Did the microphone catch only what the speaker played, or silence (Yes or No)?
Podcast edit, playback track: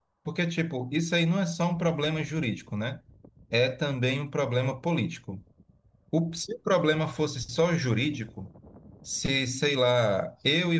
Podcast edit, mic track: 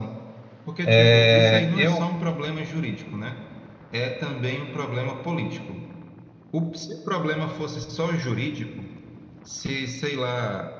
No